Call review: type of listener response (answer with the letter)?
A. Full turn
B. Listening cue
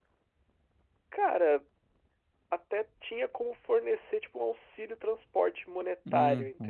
A